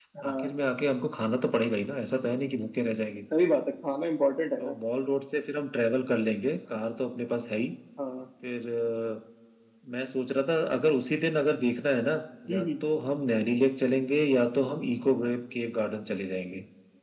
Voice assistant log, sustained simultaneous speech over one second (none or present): none